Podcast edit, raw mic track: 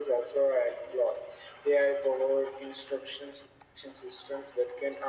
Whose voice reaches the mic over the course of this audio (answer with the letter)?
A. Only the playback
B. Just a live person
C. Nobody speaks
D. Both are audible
A